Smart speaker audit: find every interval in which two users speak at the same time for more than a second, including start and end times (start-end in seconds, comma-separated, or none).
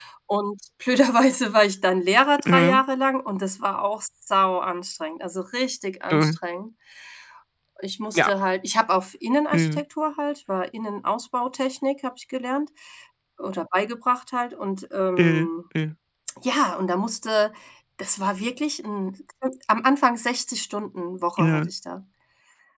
none